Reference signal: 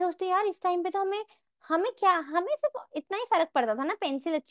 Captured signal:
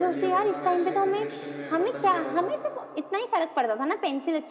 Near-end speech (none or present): present